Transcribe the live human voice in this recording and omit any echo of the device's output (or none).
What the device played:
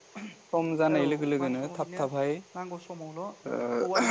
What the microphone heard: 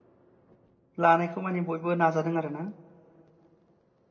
लानायखौ माने बयबो नाजादों आरो ना